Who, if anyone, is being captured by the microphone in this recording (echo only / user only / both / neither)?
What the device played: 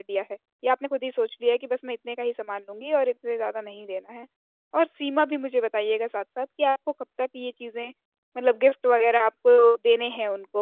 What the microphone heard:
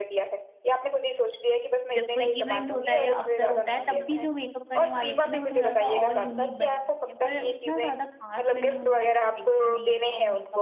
both